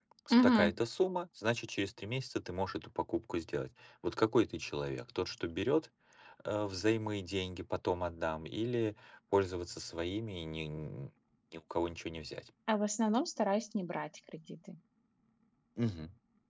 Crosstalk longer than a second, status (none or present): none